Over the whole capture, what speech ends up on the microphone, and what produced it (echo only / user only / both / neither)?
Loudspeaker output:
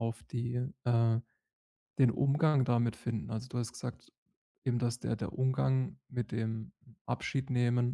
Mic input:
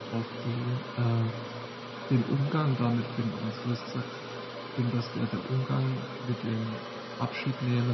echo only